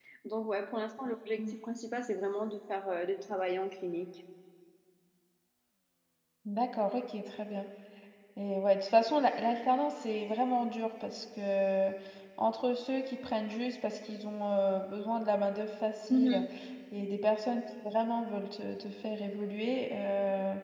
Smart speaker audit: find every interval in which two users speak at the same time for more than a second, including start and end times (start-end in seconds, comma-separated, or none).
none